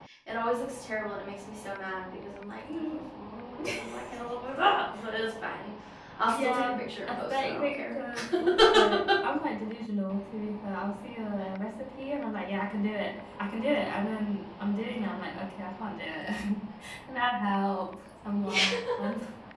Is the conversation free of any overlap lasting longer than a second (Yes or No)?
No